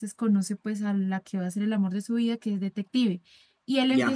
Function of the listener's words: listening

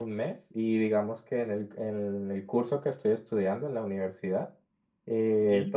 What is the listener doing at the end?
listening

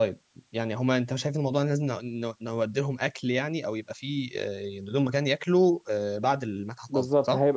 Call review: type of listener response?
taking over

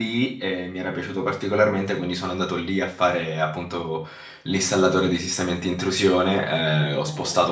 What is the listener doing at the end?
listening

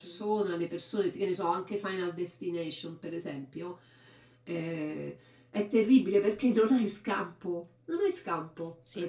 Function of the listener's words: taking over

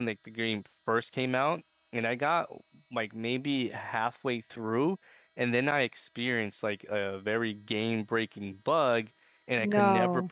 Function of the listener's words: listening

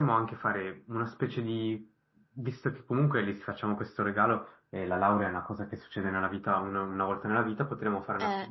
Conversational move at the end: listening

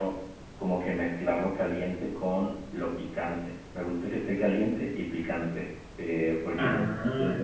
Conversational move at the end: listening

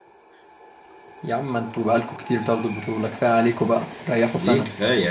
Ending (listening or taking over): taking over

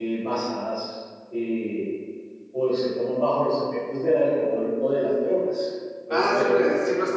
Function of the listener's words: taking over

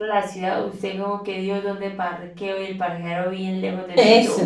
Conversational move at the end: taking over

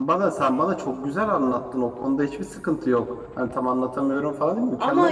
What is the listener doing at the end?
taking over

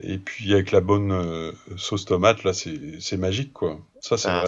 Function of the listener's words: taking over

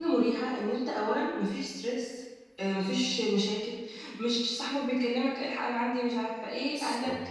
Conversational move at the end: listening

